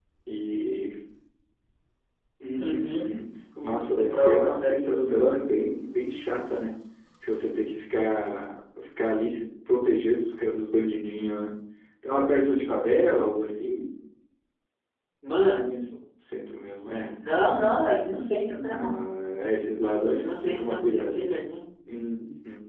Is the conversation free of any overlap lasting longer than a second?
No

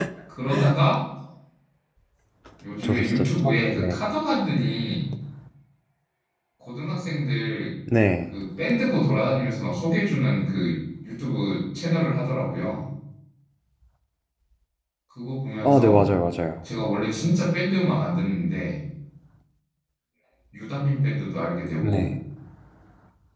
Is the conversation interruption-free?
No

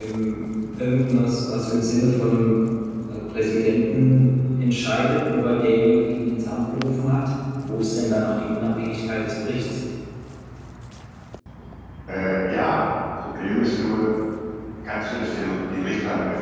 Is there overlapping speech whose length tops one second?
No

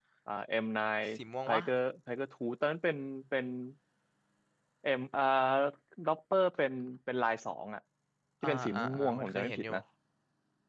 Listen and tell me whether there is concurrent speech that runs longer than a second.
Yes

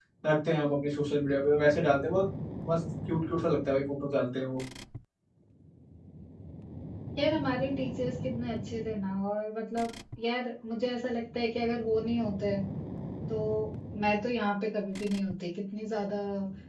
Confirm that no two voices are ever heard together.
Yes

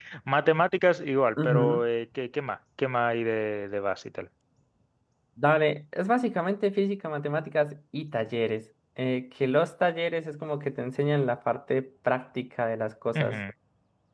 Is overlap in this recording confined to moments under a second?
Yes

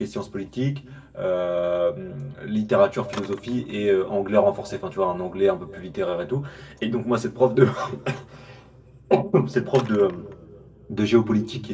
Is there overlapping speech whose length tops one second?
No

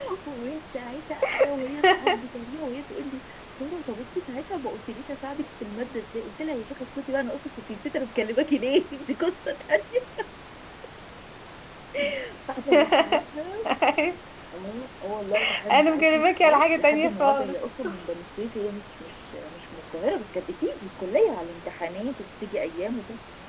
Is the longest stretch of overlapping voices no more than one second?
No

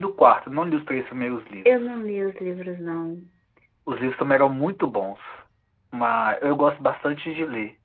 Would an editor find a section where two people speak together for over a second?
No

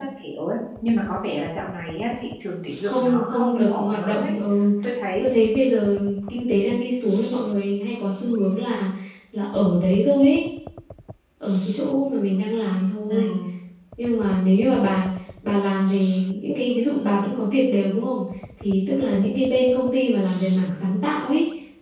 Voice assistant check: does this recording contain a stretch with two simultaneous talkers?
Yes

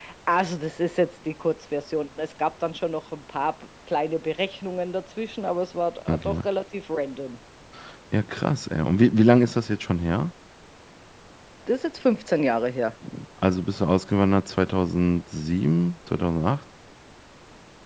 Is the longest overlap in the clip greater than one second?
No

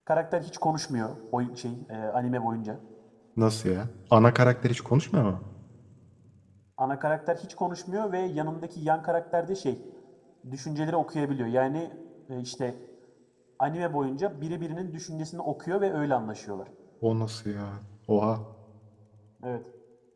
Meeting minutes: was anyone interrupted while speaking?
No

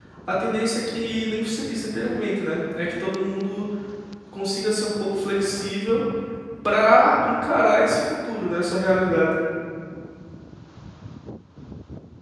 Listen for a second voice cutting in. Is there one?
No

